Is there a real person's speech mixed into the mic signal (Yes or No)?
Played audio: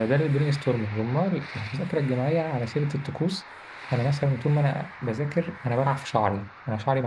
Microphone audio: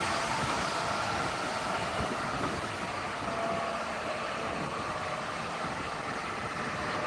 No